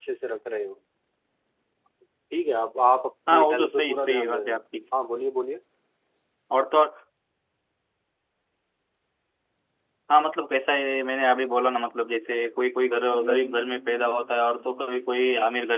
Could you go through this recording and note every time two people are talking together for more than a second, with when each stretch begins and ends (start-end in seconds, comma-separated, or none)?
3.3-4.6